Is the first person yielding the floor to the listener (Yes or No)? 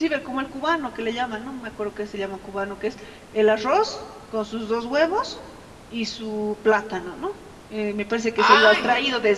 No